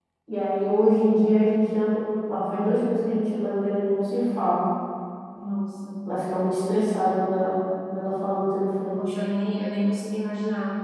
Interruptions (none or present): none